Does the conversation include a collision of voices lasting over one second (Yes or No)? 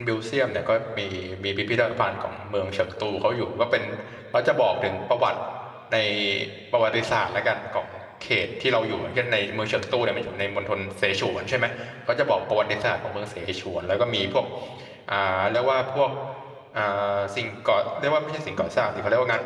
No